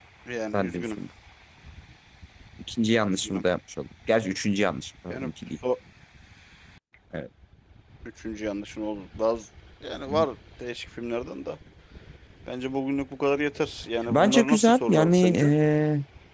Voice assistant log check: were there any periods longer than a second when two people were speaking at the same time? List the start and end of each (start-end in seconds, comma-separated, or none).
14.1-15.5